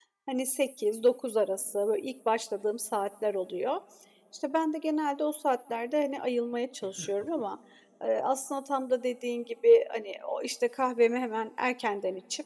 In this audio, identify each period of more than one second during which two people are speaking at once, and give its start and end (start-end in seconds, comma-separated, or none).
none